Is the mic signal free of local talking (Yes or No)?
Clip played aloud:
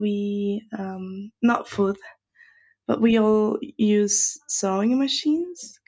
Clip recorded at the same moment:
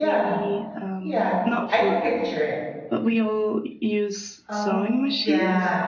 No